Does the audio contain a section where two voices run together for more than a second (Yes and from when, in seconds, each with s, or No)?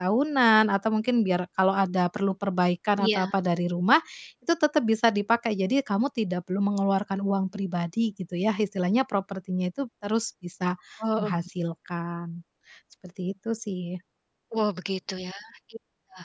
No